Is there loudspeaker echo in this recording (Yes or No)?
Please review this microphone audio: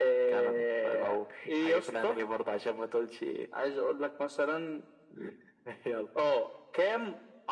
Yes